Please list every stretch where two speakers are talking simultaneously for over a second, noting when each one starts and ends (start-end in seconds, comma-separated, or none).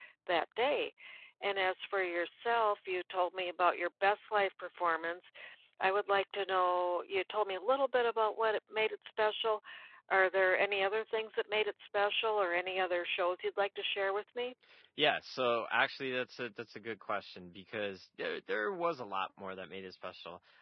none